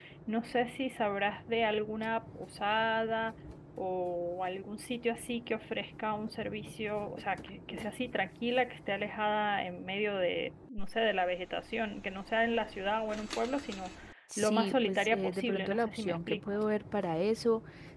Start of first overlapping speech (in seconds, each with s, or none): 14.4 s